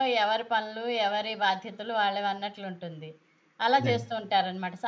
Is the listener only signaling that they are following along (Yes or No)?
Yes